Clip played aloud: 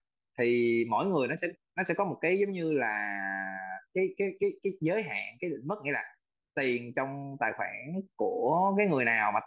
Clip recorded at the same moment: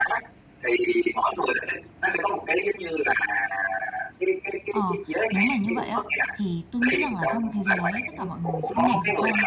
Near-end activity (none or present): present